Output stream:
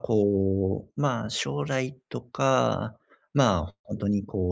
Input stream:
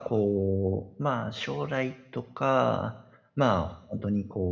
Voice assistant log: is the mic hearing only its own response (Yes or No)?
Yes